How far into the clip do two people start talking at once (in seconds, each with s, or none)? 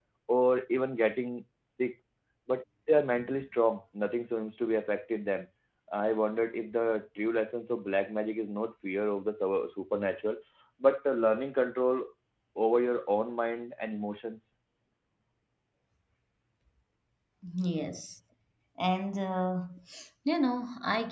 none